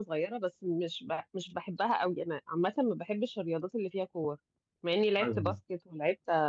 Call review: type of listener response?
listening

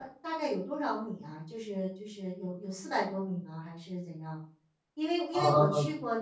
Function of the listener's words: listening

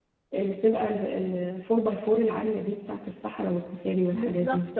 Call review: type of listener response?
taking over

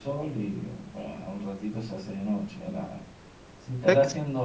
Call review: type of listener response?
listening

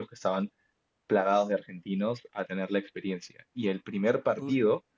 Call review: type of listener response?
listening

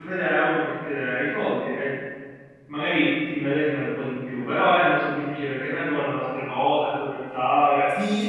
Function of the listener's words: taking over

